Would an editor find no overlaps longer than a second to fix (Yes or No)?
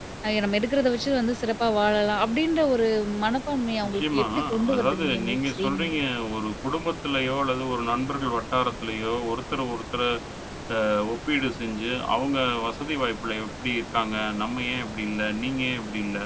No